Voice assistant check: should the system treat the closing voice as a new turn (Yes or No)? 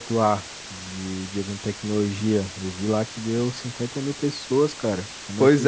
Yes